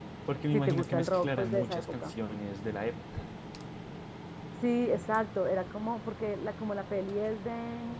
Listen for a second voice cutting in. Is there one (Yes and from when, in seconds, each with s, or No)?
Yes, from 0.5 s